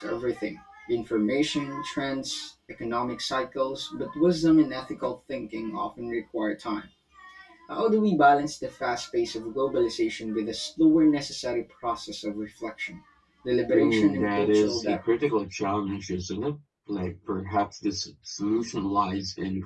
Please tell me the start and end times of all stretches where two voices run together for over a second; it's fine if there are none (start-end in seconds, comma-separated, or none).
13.7-15.0